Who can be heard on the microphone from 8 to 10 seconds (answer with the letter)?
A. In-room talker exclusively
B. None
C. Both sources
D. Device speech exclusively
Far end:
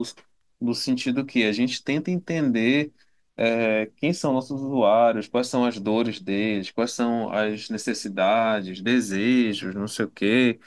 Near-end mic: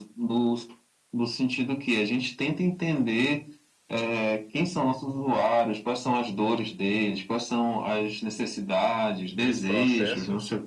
C